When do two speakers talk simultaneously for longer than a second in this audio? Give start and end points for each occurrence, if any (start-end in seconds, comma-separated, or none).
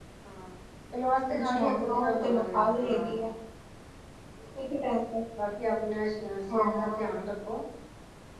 1.4-3.2